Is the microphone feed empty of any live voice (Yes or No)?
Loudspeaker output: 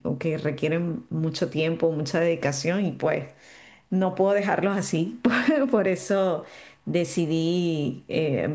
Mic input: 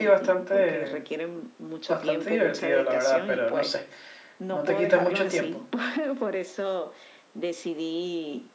No